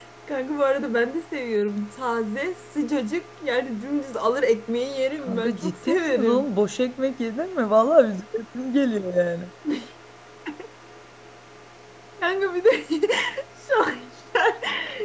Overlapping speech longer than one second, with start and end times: 5.3-6.5

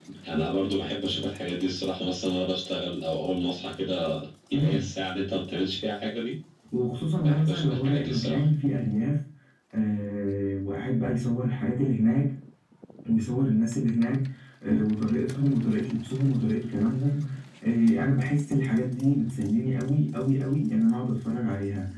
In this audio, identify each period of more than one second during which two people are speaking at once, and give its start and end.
7.2-8.5

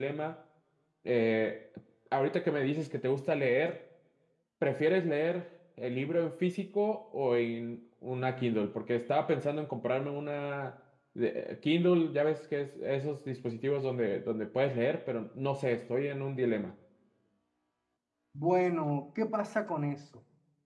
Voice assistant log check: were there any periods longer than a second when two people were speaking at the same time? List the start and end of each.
none

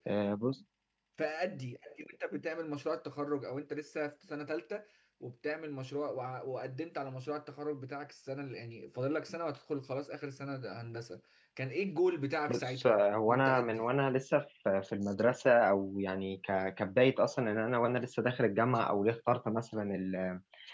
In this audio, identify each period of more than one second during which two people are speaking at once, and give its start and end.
12.5-13.8

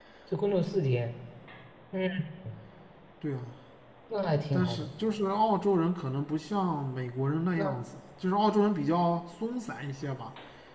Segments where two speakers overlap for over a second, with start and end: none

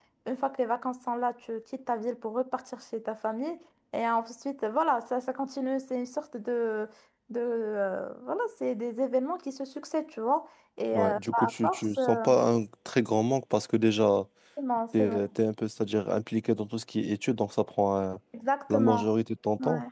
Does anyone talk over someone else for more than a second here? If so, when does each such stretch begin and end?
10.9-12.3

